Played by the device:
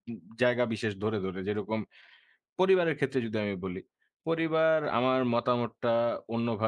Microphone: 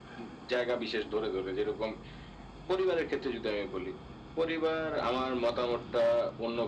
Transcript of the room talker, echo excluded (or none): none